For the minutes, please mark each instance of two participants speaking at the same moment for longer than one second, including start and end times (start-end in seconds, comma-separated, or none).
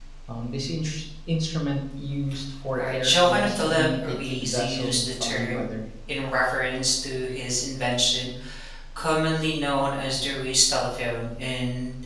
2.8-5.6